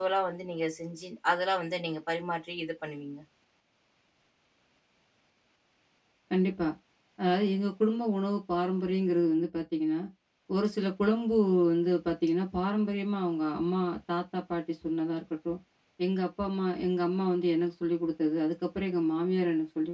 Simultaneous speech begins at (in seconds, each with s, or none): none